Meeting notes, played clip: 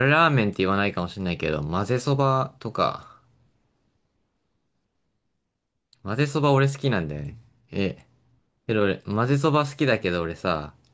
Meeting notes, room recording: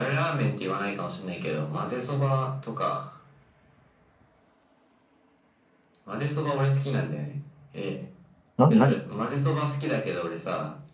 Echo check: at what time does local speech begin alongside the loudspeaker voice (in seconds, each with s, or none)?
8.6 s